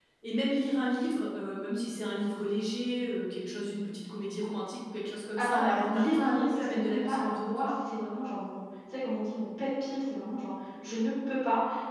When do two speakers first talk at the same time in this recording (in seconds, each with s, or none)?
5.4 s